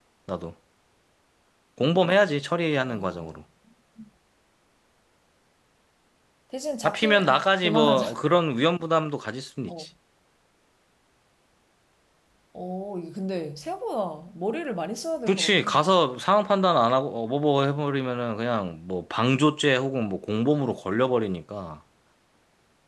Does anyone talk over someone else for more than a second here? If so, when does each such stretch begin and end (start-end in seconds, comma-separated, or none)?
6.8-8.0